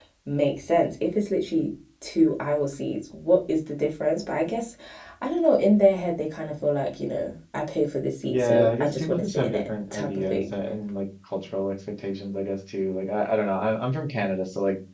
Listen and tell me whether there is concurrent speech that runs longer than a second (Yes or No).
Yes